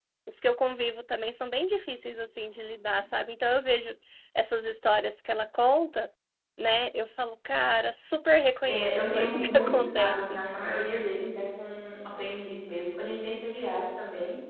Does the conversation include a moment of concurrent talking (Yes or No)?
Yes